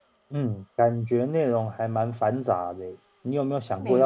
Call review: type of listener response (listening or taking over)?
listening